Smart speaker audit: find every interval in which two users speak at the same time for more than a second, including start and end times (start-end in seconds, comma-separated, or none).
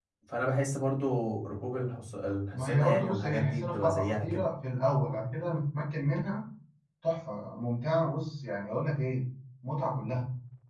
2.5-4.4